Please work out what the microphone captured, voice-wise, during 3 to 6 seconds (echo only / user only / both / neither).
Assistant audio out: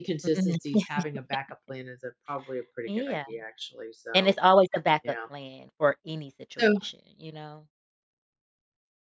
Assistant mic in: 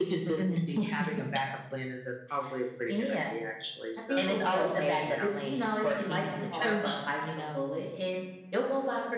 both